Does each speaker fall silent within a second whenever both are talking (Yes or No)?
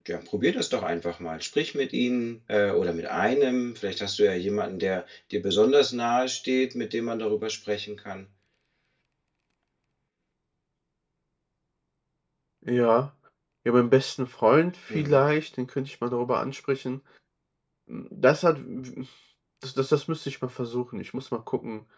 Yes